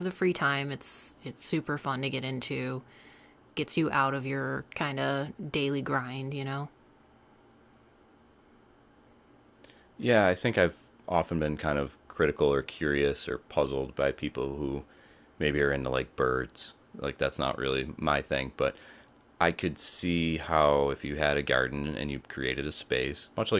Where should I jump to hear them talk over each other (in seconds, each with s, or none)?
none